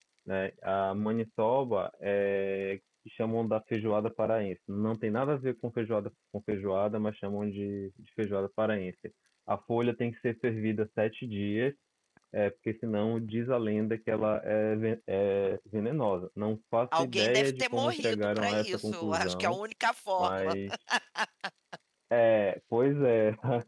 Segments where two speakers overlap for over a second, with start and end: 17.0-19.6

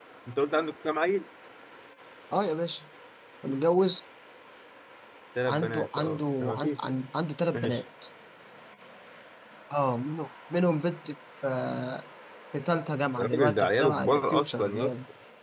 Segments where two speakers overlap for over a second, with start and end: 5.5-6.7, 13.2-14.9

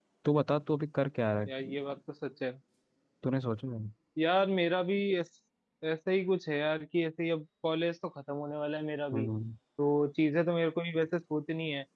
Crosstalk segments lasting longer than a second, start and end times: none

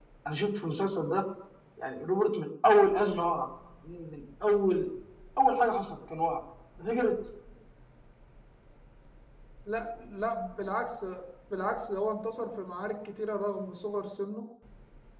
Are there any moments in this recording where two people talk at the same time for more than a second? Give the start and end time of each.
none

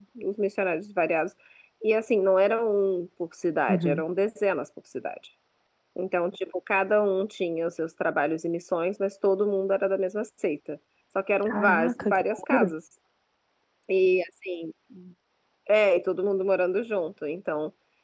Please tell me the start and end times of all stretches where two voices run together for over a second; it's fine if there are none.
11.5-12.7

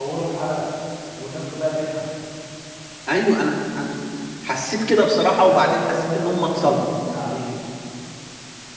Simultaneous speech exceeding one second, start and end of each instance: 5.4-6.8

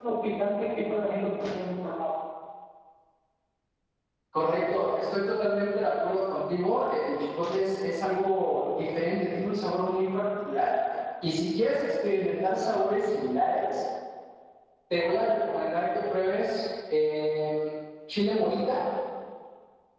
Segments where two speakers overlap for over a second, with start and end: none

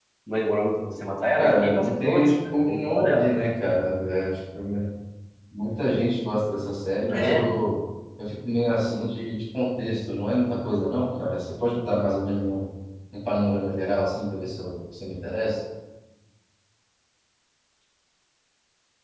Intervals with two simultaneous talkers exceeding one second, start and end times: 1.4-3.3

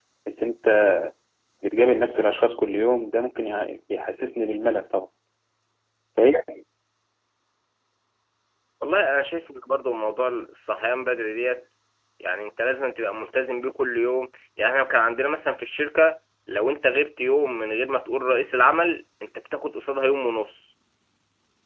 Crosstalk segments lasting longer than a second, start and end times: none

